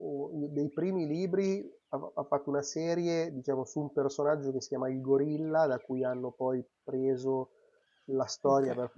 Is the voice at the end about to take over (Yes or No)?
No